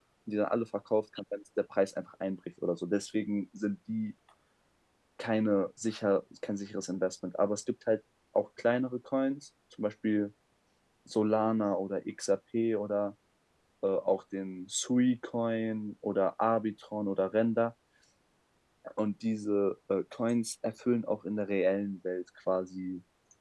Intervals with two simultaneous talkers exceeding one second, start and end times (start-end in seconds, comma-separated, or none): none